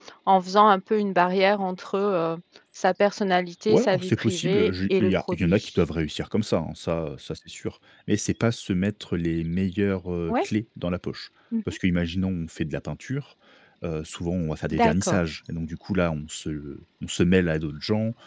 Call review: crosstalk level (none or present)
present